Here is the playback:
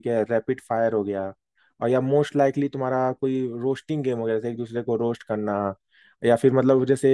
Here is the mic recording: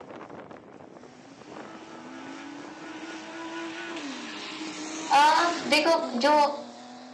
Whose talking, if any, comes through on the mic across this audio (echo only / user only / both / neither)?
user only